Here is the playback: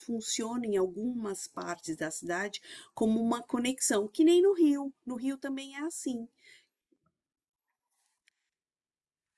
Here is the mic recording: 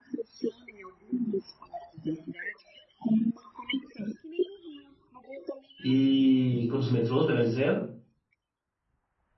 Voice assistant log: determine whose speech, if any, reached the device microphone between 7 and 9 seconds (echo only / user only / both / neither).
user only